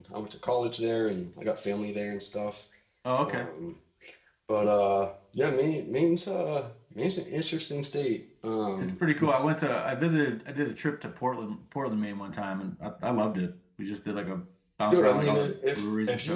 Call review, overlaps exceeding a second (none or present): present